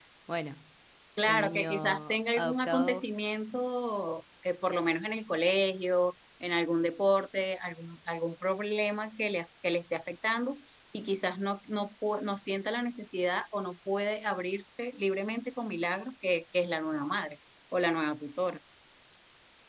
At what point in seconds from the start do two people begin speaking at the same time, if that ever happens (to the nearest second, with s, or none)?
1 s